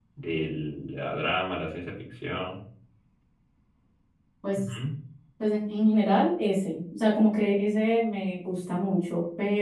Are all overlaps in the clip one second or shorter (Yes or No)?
Yes